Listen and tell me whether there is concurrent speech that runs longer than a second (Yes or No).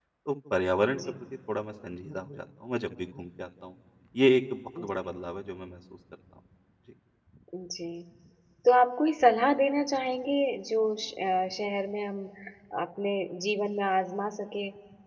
No